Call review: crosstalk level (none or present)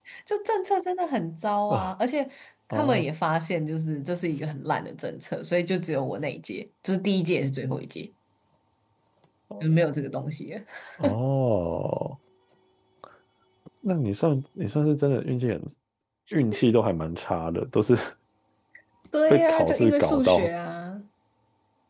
present